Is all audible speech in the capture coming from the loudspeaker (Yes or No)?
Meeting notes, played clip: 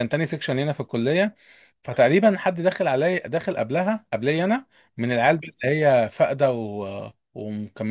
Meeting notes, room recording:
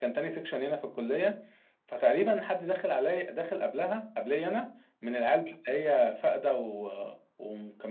Yes